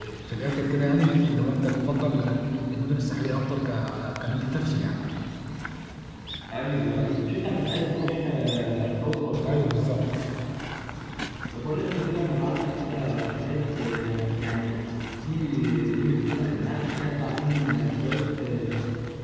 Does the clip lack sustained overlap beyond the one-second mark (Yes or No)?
Yes